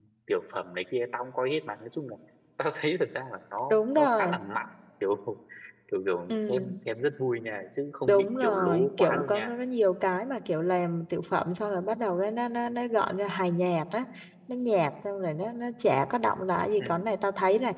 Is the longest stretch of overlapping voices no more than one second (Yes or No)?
No